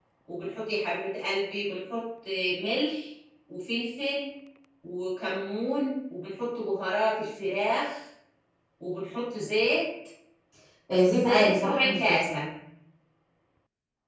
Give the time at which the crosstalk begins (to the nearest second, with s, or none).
11 s